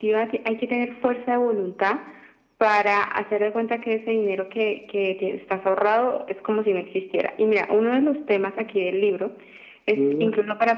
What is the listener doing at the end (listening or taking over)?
listening